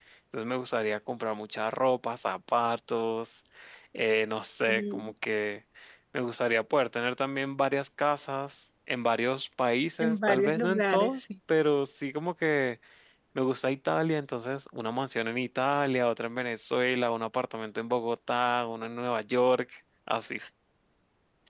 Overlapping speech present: Yes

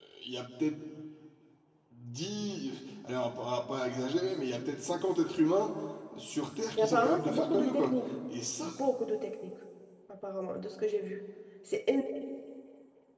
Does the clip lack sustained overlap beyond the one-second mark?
No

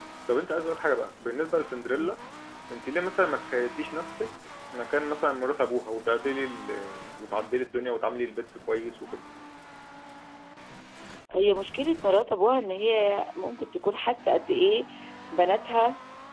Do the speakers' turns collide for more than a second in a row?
No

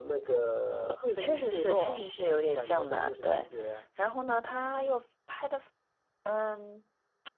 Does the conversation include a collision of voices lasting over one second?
Yes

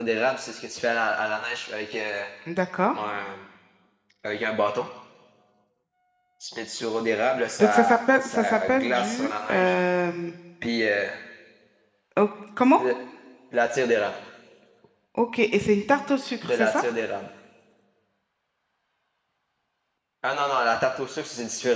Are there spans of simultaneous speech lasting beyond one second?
Yes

